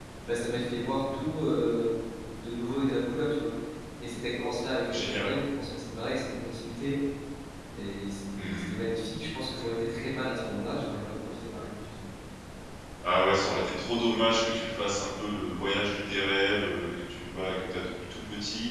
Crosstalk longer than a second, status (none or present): none